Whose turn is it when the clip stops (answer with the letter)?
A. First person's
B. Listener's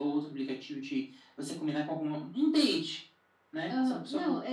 B